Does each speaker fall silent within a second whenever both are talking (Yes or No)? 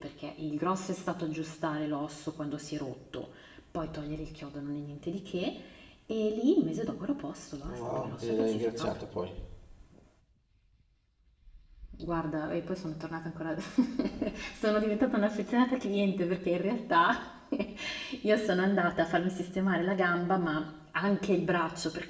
No